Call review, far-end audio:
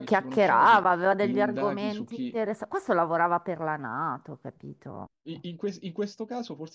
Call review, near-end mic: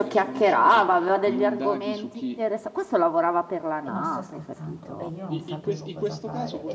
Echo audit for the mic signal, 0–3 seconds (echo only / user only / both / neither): echo only